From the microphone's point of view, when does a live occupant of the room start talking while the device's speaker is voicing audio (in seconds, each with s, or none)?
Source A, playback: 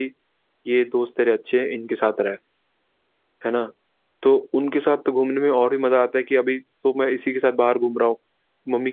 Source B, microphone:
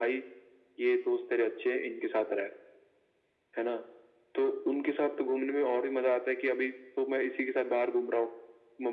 none